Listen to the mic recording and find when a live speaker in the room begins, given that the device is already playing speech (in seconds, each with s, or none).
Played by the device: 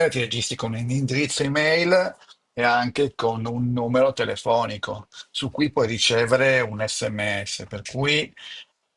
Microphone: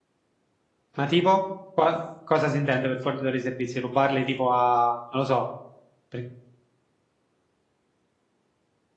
1.0 s